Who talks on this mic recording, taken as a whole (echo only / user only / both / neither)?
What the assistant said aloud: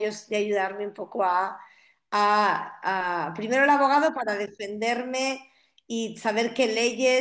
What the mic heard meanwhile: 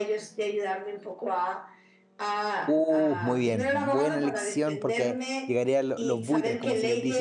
both